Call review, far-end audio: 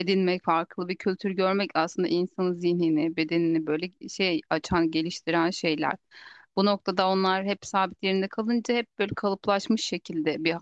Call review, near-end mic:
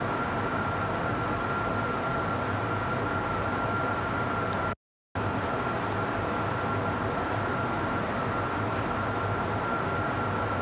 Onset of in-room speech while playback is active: none

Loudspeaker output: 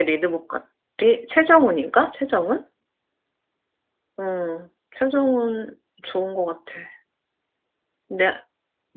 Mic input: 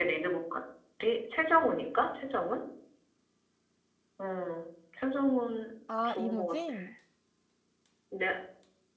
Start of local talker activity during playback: 5.9 s

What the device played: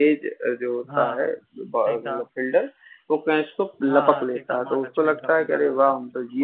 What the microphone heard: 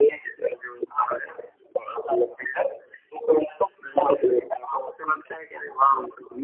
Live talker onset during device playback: none

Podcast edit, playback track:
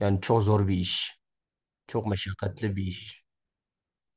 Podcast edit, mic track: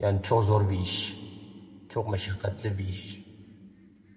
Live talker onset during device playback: none

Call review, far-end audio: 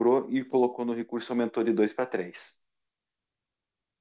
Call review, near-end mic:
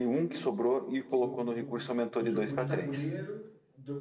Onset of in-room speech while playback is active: 1.1 s

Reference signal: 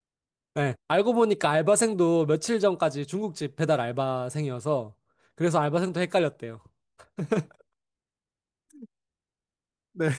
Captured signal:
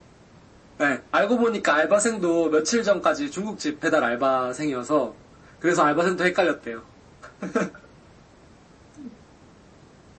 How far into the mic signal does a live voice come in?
none

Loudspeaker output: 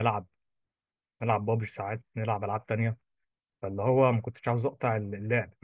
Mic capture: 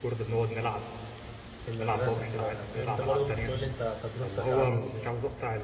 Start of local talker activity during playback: 1.6 s

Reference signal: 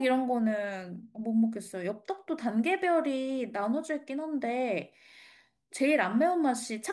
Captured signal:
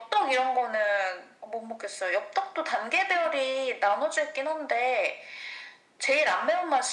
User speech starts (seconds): none

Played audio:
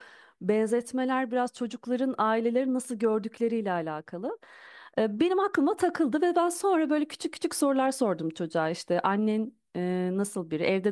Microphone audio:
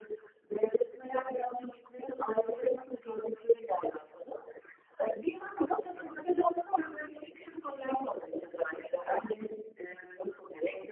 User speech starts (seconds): none

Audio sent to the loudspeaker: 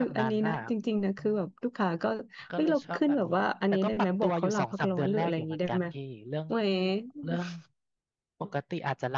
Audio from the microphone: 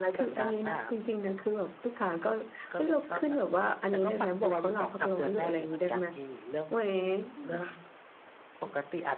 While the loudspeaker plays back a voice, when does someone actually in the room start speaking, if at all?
none

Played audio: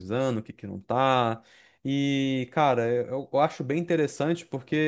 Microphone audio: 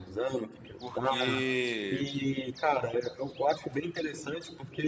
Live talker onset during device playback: 0.8 s

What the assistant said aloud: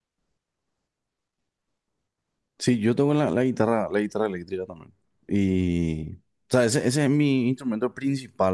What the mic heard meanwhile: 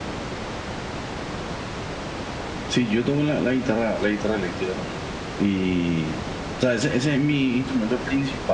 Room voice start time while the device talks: none

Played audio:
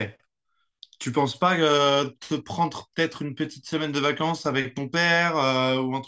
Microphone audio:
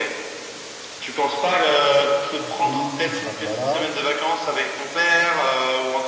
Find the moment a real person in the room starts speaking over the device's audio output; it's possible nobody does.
2.4 s

